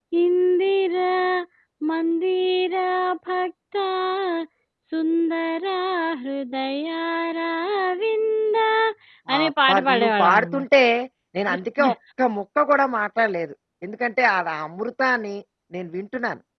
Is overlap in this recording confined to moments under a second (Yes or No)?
No